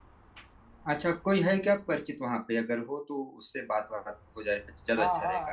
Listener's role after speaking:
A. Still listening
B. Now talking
B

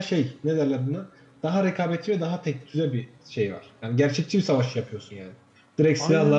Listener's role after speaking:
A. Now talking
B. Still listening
B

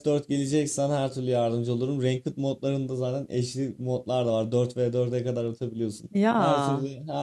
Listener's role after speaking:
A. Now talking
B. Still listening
B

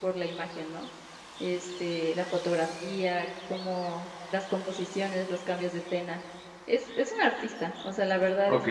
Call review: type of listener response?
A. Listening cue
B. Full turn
B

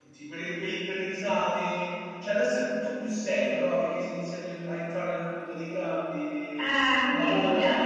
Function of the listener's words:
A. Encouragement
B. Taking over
B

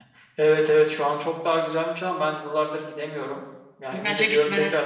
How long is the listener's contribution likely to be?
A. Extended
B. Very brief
B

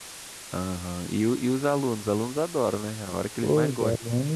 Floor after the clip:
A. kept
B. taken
B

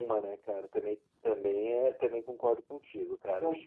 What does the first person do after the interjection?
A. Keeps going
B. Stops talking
B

